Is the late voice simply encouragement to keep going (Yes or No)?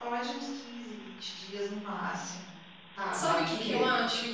No